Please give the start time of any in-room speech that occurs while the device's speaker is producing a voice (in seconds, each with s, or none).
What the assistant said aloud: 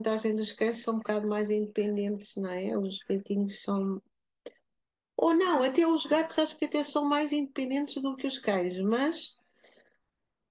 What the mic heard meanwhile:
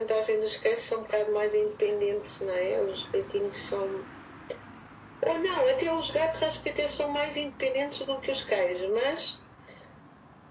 none